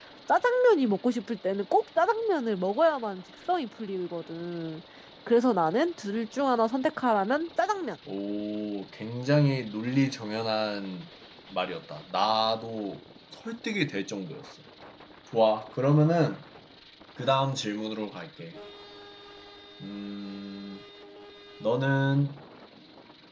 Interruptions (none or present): none